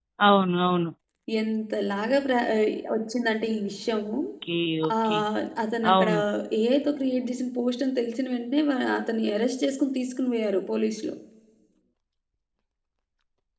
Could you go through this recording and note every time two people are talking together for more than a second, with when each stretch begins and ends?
none

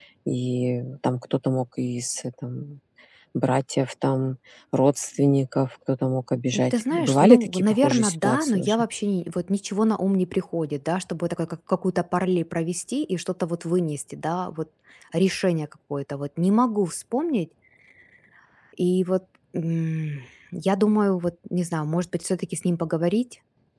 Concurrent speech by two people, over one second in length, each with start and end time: 6.5-8.8

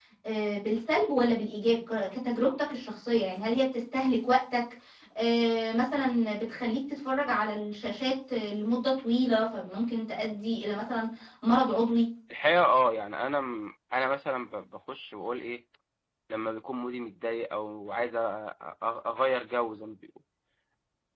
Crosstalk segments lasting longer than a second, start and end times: none

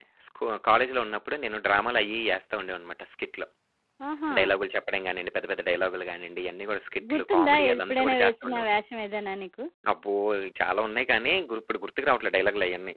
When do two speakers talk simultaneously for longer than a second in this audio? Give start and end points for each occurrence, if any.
7.1-8.7

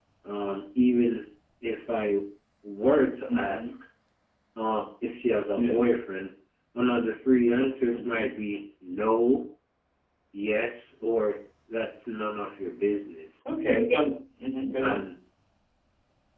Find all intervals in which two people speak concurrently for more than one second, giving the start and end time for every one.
none

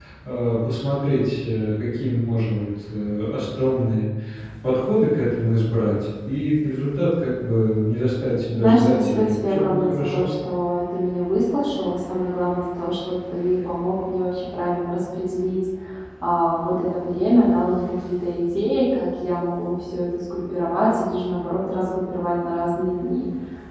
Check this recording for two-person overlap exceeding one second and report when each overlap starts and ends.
8.5-10.3

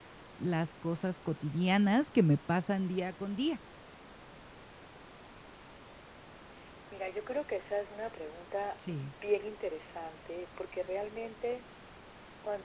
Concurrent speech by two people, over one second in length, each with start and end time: none

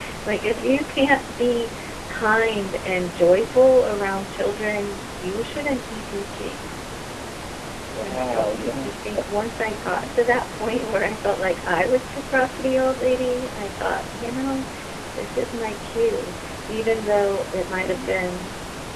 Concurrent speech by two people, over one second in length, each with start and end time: 8.0-9.2

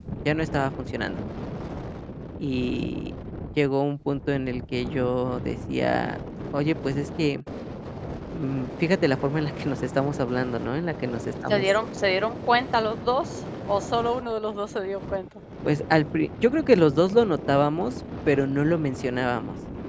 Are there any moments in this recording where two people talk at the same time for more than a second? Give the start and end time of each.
none

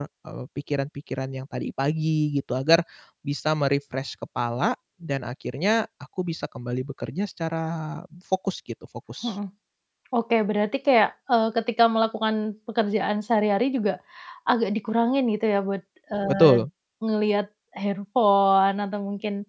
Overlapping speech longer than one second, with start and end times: none

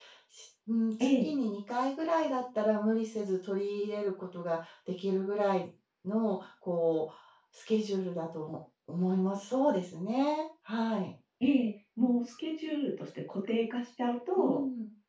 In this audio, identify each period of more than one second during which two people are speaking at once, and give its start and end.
none

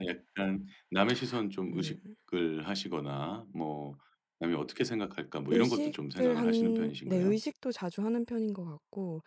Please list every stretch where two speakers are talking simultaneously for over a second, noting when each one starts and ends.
5.5-7.4

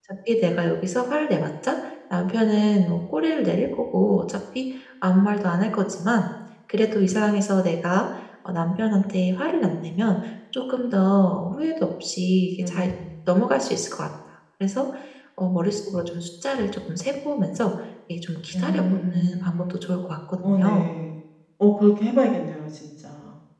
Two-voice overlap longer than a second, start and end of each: 18.5-19.8

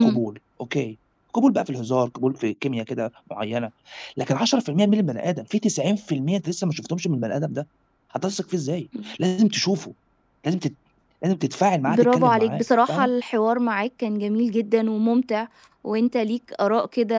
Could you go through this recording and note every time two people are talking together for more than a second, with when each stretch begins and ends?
11.9-13.1

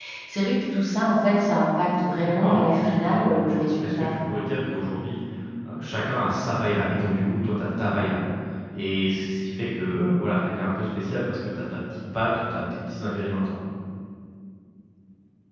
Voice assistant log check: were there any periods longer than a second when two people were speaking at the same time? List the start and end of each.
2.3-4.3

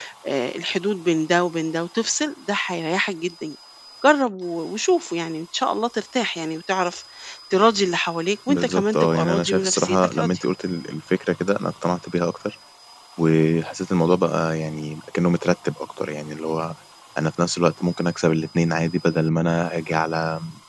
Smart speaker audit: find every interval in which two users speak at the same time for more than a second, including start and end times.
8.5-10.4

